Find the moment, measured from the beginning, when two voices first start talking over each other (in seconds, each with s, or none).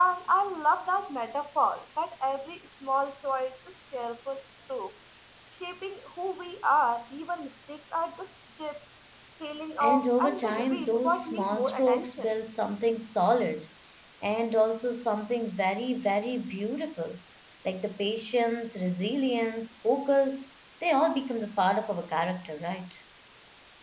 9.8 s